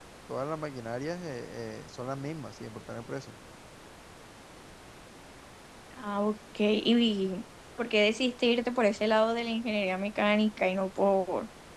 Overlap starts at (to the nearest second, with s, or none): none